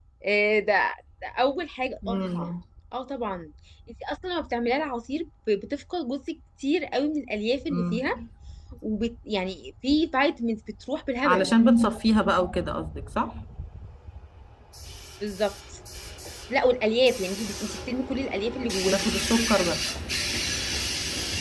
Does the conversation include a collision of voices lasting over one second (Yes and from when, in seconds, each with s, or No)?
No